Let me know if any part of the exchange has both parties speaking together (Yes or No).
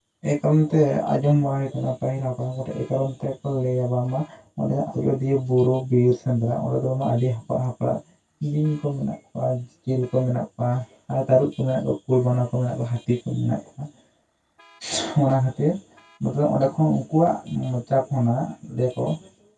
No